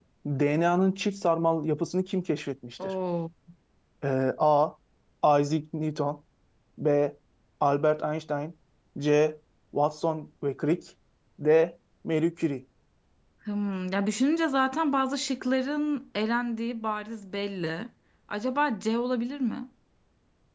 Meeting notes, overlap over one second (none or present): none